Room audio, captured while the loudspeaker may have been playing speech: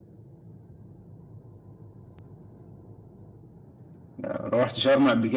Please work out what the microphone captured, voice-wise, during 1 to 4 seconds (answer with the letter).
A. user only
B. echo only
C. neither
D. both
C